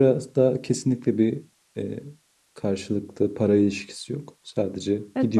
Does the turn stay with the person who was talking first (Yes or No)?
No